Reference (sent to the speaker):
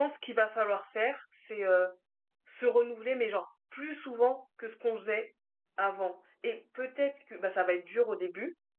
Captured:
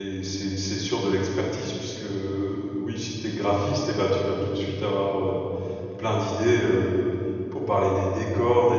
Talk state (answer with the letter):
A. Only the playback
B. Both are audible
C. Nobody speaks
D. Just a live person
D